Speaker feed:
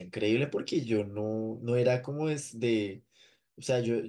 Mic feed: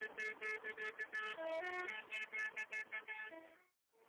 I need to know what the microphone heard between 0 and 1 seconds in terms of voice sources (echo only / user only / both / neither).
neither